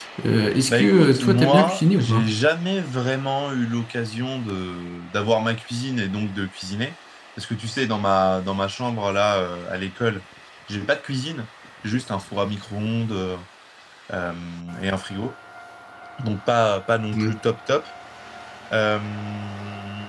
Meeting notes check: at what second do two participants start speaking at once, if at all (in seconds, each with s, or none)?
0.7 s